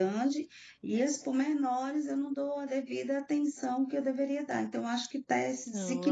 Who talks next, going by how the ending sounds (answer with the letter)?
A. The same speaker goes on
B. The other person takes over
B